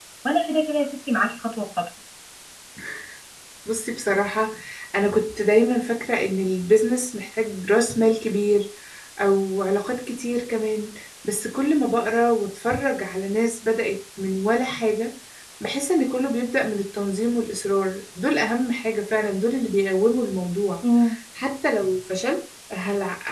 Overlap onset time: none

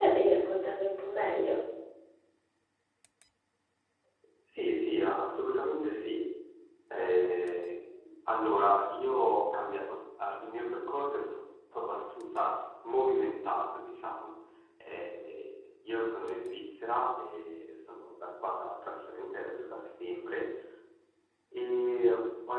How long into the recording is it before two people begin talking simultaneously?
none

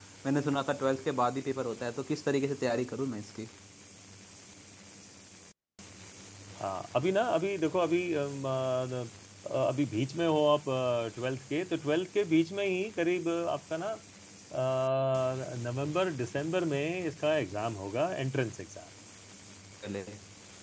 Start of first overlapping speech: none

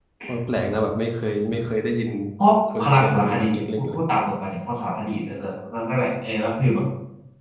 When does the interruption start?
2.8 s

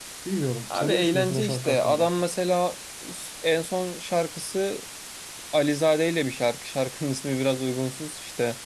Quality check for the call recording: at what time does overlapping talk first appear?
0.7 s

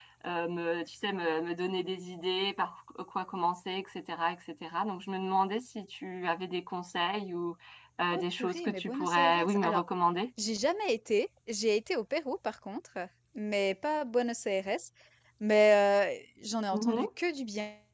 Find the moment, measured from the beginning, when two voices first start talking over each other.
8.1 s

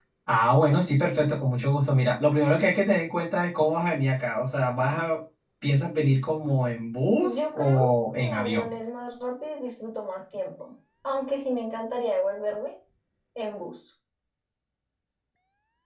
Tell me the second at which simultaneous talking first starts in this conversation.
7.2 s

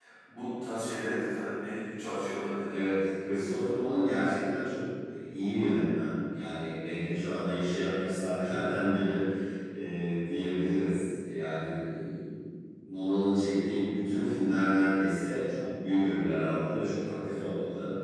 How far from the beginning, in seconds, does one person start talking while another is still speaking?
none

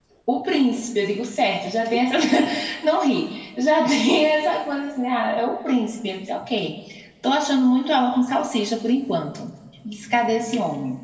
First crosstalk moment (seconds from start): none

